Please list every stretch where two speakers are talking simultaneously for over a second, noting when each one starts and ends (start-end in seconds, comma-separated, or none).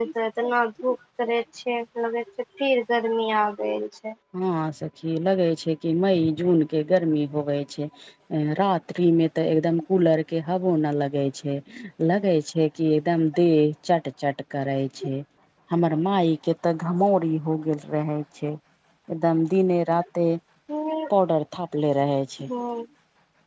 none